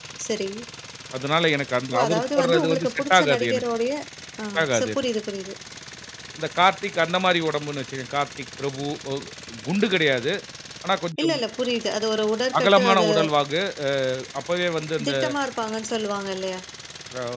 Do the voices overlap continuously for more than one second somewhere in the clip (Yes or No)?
Yes